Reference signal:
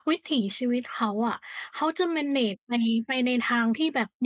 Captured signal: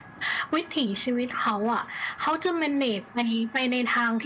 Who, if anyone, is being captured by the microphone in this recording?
echo only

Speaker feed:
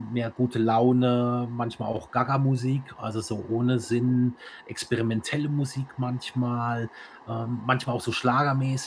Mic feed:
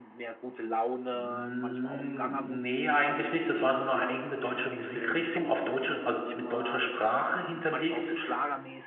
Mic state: both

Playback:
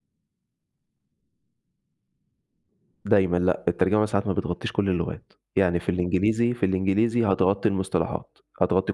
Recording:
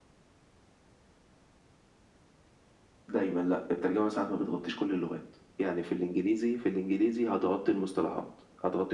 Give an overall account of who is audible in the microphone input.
echo only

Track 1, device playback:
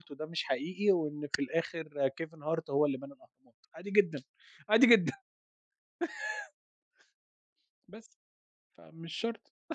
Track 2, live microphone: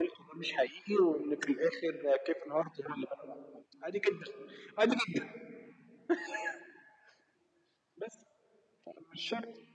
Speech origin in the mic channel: echo only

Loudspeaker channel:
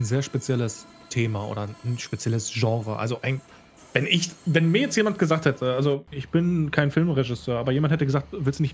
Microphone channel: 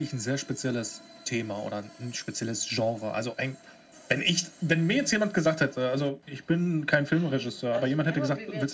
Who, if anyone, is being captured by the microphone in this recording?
both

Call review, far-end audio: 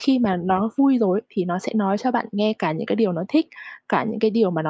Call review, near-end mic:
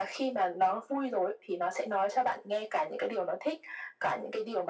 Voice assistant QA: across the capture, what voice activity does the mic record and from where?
echo only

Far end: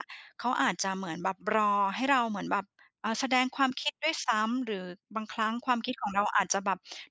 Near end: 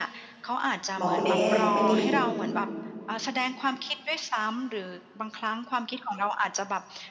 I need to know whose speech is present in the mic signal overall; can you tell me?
both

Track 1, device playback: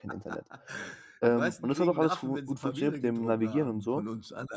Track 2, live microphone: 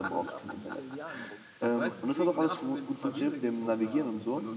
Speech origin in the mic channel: both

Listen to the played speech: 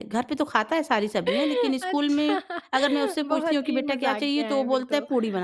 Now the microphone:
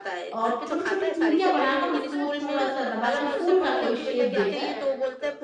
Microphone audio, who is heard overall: both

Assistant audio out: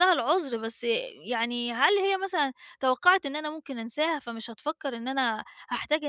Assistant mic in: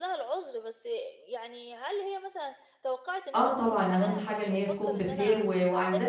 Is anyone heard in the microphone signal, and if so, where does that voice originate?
both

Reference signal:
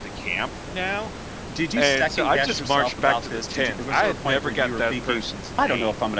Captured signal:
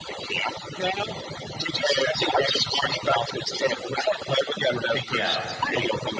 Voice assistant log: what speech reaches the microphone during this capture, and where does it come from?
both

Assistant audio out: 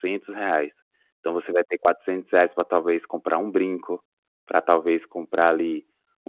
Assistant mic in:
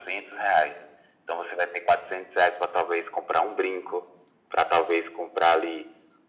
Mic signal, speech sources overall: echo only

